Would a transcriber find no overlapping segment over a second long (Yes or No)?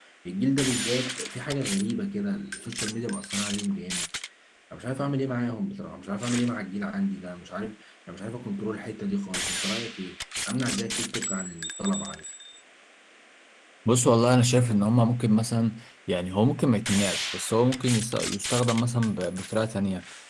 Yes